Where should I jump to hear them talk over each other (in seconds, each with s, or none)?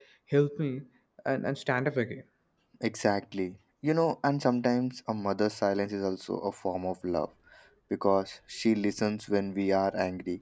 none